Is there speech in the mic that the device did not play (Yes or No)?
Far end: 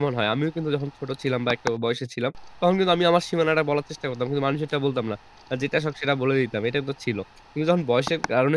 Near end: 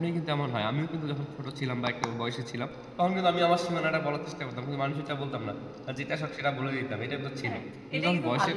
Yes